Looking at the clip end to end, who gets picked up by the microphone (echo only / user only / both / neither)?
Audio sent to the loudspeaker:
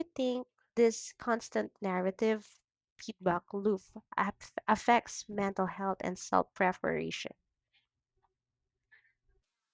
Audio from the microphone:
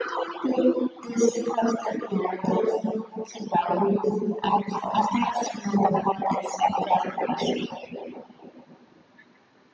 echo only